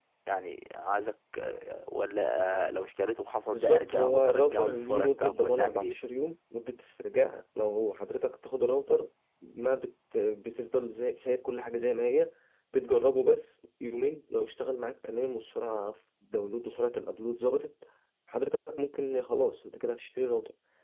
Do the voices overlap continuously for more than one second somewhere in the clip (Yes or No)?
Yes